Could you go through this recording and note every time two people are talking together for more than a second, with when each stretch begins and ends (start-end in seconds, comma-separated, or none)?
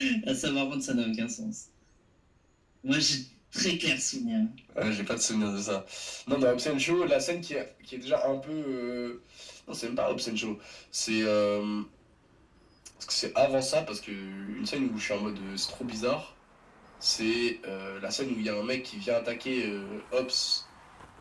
none